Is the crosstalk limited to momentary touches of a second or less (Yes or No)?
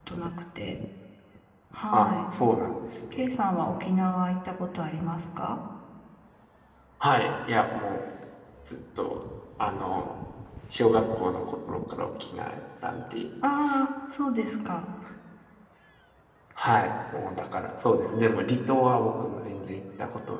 Yes